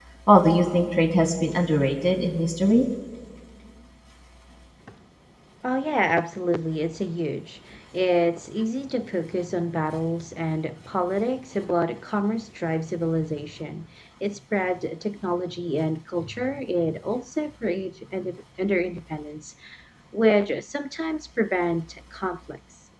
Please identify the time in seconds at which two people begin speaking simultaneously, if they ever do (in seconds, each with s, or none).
none